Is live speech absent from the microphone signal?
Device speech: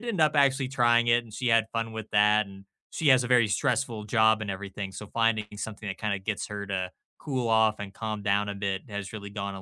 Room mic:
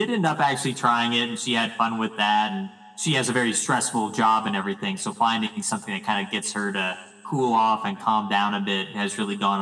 Yes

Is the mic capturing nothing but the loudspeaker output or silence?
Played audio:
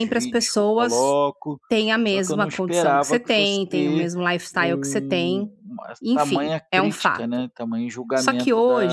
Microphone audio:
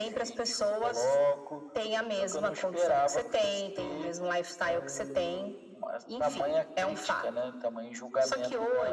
Yes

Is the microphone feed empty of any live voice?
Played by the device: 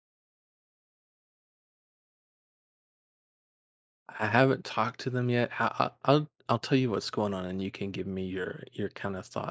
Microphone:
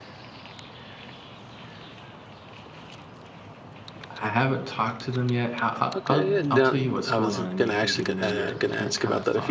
No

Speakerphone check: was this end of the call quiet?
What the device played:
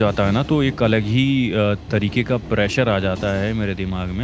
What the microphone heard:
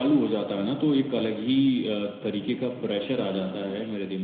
Yes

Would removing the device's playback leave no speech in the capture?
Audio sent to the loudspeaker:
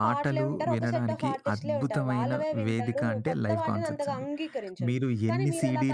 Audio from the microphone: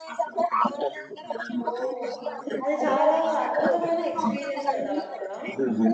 No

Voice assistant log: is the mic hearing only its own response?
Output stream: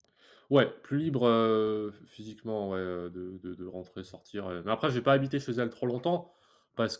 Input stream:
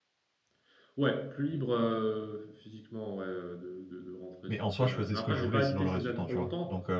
No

